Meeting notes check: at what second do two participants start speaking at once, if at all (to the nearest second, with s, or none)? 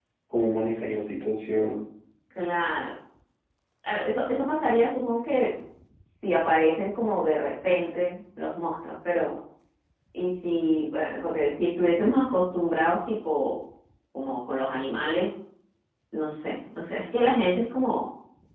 none